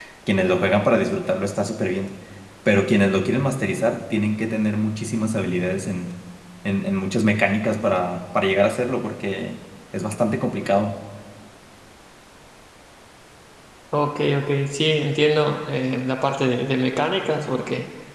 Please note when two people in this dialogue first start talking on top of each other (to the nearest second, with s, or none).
none